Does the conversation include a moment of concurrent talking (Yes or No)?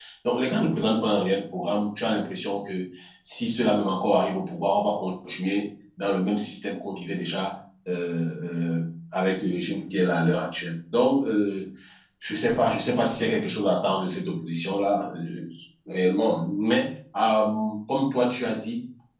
No